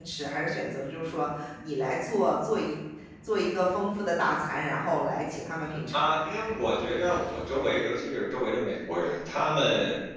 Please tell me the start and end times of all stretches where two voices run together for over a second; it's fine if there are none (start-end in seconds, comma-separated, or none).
none